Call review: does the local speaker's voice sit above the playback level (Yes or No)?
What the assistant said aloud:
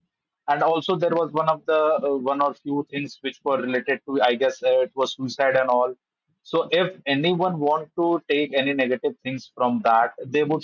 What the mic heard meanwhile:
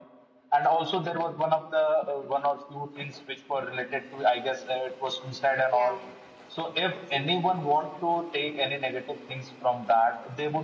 No